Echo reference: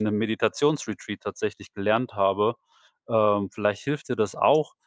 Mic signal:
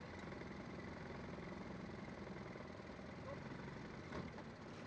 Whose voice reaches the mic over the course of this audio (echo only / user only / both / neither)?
neither